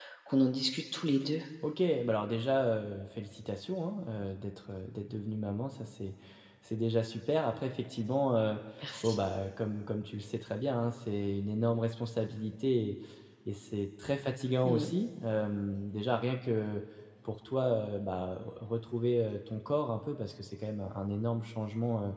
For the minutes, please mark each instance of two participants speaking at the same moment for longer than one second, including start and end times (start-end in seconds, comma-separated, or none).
none